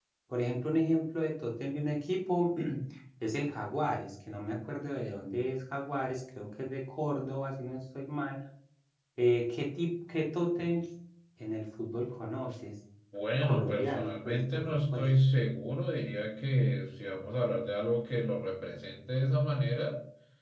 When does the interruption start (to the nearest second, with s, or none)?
13 s